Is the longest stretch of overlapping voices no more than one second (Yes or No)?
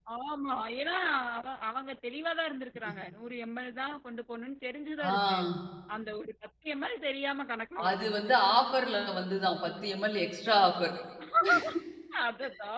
Yes